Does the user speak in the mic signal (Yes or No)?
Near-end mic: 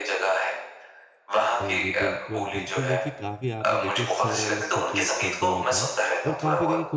Yes